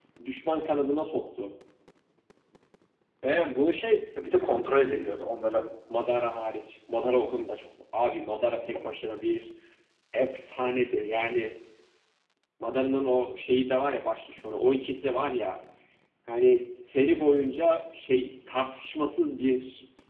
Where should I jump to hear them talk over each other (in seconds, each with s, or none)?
none